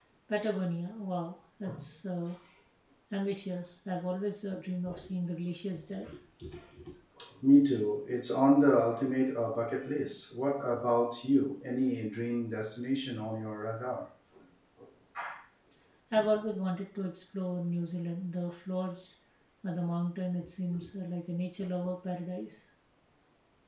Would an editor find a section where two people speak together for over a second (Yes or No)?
No